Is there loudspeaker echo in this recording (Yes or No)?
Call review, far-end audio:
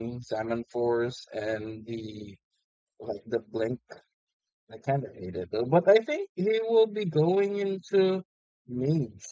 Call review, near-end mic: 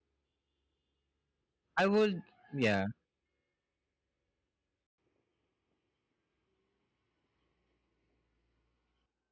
No